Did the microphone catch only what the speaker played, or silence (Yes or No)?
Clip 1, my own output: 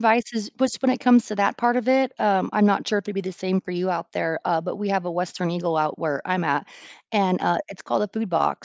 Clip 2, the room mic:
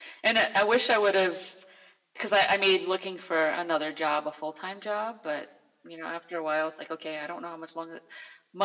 No